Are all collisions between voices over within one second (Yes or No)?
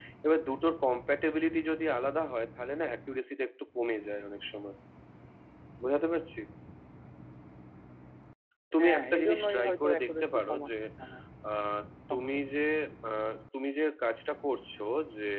No